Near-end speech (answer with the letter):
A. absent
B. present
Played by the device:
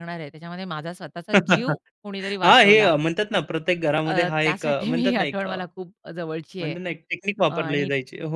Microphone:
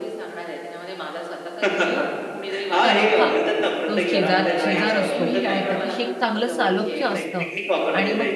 B